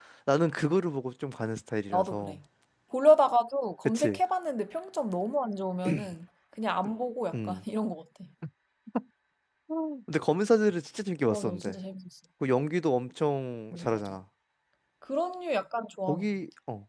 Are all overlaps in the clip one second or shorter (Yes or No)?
Yes